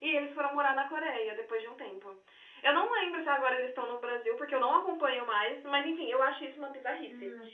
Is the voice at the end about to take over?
Yes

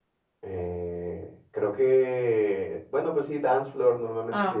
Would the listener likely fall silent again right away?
No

